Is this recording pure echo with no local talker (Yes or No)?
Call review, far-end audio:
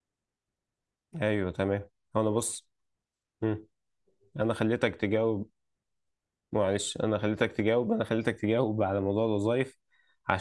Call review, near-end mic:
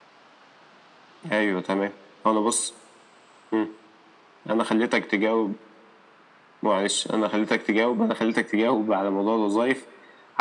Yes